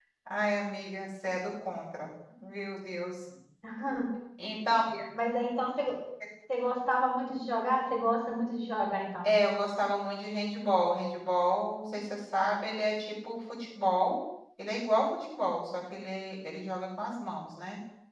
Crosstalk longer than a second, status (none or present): none